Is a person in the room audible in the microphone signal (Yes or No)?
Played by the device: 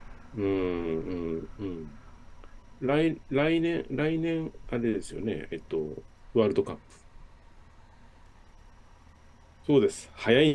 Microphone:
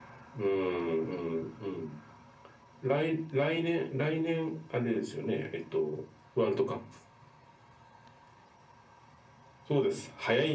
No